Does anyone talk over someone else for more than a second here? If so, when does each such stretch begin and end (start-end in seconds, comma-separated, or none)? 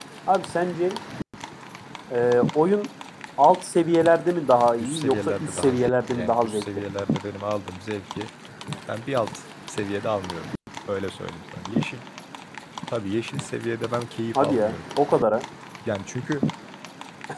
4.8-6.7